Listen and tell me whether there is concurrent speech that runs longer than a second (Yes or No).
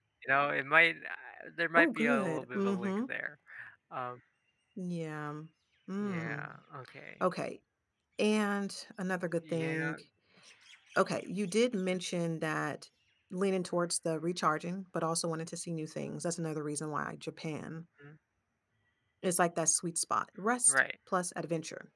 Yes